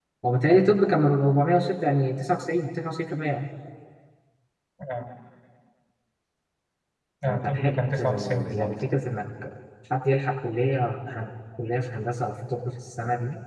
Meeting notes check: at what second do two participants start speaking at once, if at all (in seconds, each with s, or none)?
7.2 s